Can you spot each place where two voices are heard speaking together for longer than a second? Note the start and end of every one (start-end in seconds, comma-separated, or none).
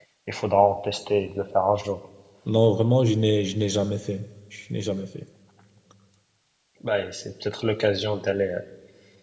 none